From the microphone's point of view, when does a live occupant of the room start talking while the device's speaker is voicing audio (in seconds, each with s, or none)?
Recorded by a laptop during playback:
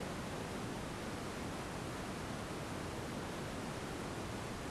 none